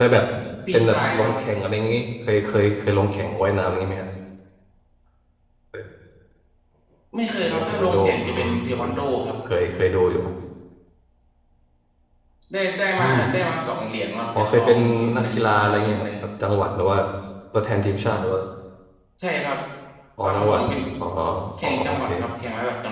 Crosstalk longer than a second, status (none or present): present